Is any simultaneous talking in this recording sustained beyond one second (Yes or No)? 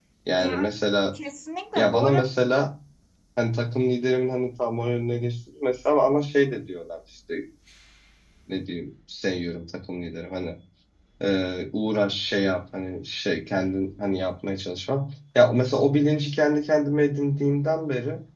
No